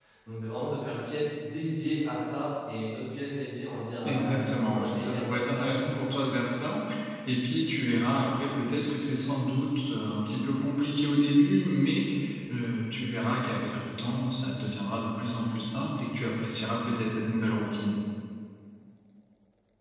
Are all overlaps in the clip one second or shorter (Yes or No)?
No